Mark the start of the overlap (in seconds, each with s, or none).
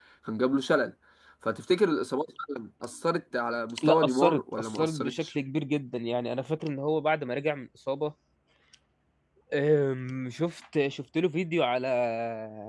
3.8 s